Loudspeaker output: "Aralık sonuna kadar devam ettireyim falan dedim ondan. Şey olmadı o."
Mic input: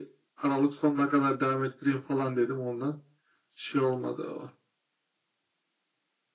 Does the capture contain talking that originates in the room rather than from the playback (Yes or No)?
No